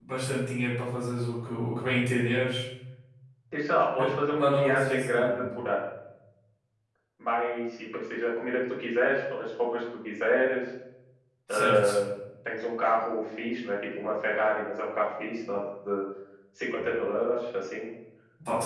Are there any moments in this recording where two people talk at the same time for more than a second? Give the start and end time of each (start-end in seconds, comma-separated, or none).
4.0-5.4